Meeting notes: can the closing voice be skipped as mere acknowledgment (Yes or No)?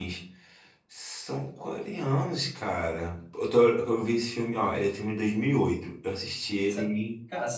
No